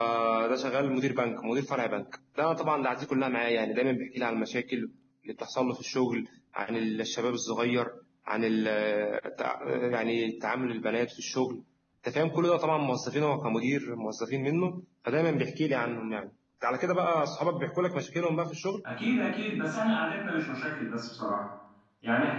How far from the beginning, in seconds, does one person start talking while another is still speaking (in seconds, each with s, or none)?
none